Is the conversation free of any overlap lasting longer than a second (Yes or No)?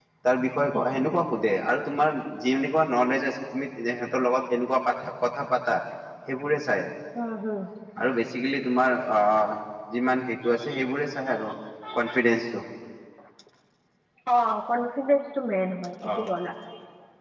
Yes